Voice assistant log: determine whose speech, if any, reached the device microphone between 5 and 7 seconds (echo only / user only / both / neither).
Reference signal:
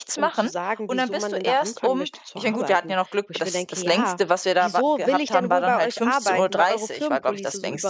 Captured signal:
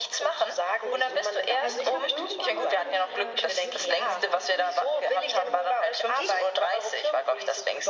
both